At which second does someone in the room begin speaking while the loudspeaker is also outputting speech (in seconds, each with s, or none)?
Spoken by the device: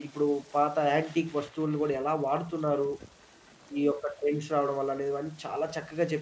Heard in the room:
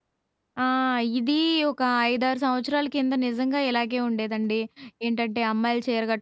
0.6 s